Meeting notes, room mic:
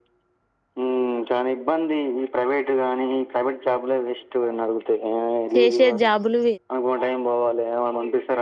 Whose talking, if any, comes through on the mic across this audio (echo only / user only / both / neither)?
both